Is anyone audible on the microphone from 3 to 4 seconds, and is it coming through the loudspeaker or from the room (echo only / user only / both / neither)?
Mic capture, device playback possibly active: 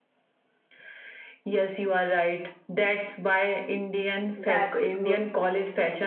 echo only